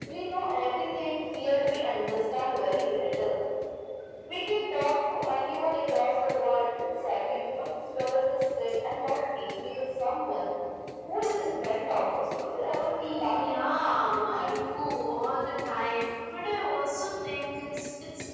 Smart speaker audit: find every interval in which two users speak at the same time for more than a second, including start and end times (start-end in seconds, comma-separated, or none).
13.0-14.4